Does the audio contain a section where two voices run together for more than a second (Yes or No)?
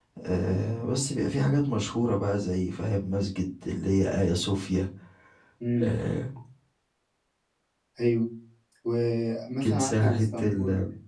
Yes